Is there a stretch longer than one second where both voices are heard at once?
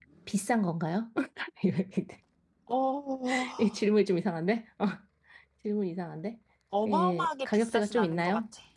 Yes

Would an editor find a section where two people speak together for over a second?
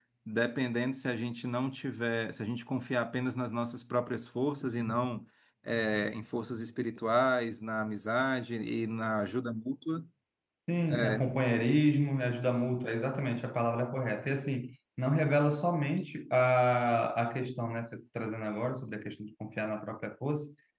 No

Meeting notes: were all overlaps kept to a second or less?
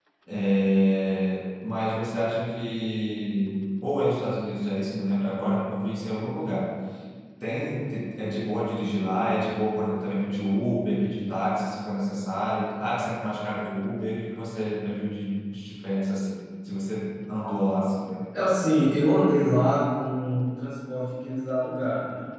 Yes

